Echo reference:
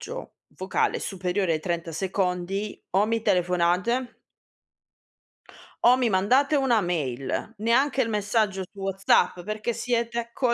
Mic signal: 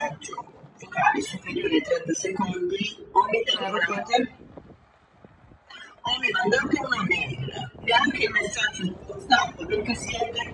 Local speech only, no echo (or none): Erto.